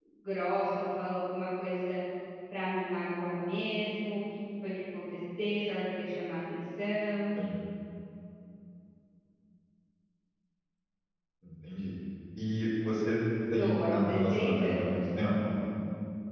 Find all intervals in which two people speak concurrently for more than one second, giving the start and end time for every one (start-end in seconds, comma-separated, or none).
13.6-14.9